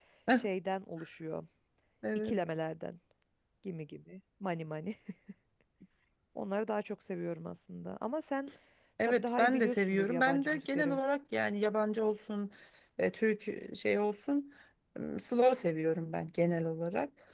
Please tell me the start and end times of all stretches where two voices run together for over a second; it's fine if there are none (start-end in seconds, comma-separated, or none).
9.1-11.0